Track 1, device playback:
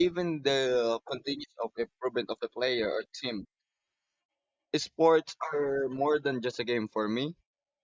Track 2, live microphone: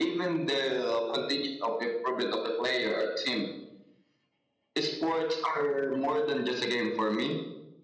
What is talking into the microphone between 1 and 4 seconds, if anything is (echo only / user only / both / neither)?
echo only